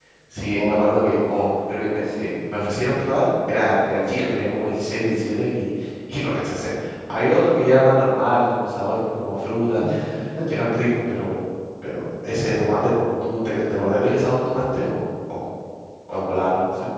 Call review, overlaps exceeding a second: none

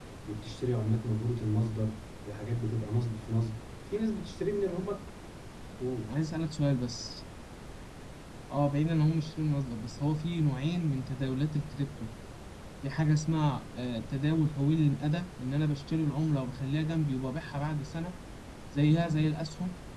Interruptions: none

